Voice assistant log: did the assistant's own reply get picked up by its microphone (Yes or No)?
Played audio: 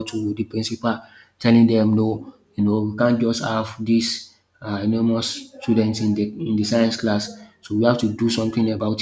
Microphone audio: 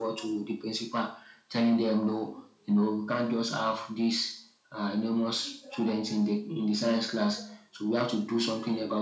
Yes